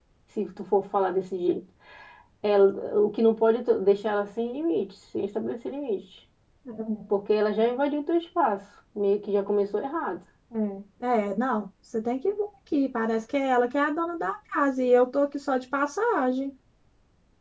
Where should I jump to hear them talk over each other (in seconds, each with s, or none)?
none